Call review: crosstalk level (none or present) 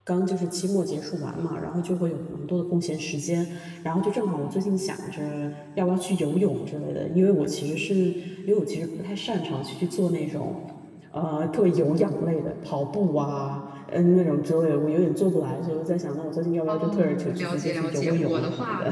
present